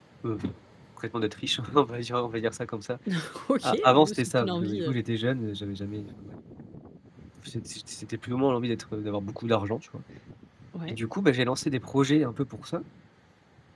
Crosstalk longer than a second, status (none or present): present